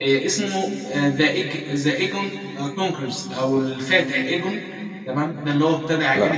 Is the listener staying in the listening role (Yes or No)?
Yes